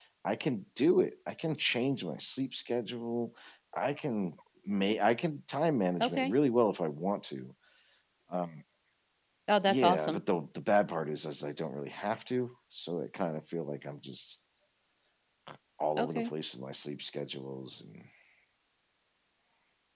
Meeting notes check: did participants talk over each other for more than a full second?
No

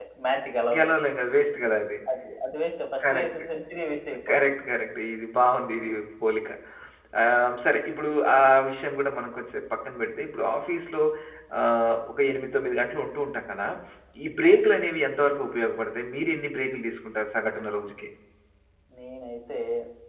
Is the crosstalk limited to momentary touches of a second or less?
Yes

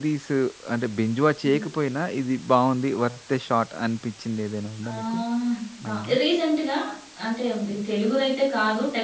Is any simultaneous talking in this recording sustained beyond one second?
No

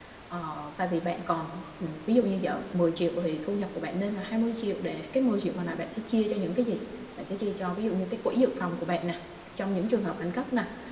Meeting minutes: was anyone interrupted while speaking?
No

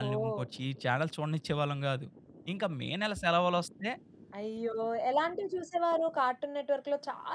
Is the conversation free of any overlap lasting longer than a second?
Yes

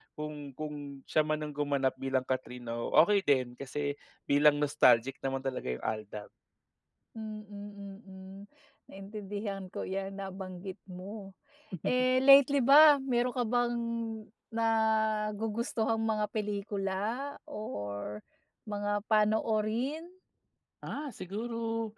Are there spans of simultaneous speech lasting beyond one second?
No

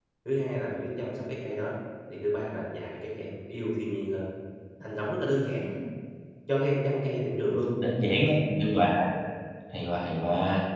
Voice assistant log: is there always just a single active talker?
Yes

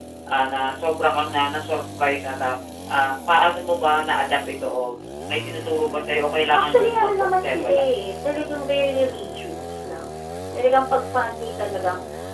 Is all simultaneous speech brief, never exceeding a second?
No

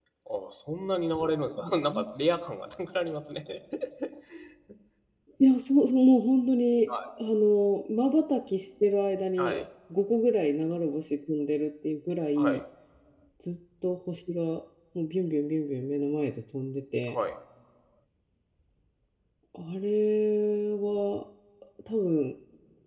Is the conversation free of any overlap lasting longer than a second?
Yes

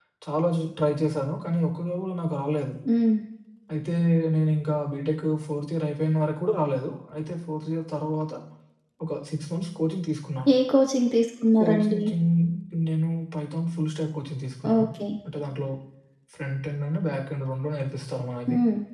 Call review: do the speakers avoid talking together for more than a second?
Yes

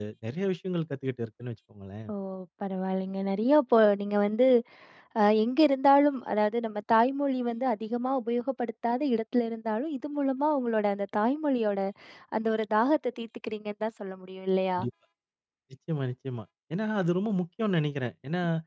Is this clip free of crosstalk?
Yes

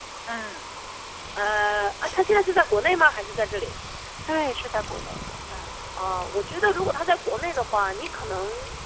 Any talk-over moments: No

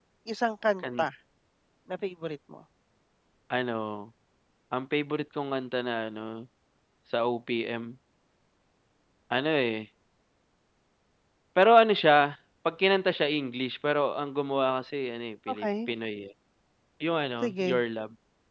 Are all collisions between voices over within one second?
Yes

